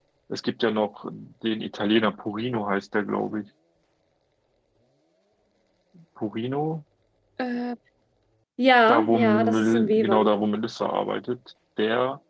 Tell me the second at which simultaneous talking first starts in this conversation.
9 s

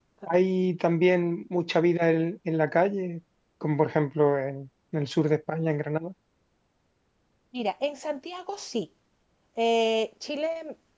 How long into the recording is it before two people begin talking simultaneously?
none

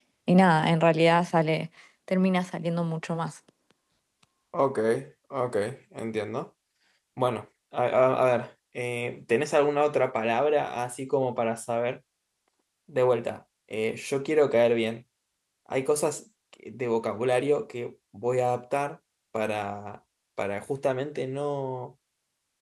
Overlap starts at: none

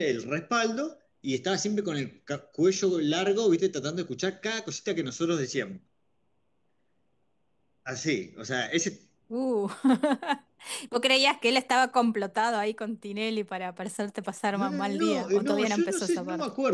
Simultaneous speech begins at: 15 s

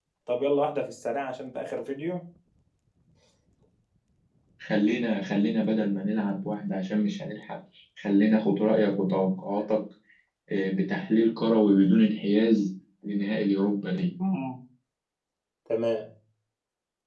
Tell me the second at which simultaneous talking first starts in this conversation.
none

